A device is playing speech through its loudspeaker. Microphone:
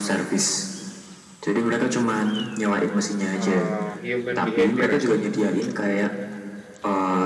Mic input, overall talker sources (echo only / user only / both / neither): both